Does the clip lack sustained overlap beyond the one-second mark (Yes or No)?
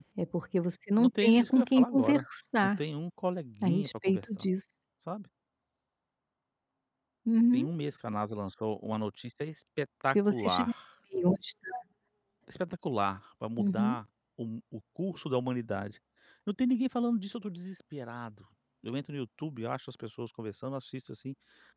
No